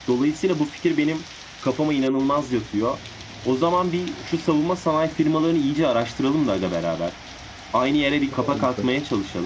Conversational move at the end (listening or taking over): listening